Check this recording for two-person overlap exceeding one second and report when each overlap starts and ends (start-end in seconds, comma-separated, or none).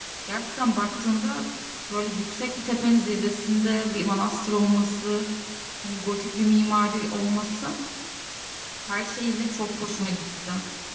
none